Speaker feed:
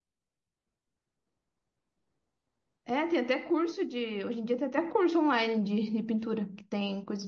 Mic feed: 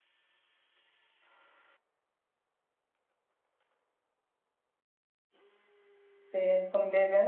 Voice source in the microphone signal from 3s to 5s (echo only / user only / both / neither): neither